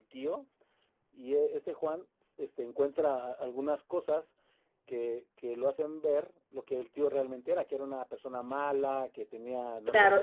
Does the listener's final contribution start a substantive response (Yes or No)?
Yes